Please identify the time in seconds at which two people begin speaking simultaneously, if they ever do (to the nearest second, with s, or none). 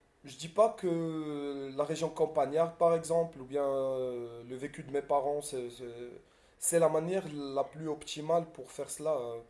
none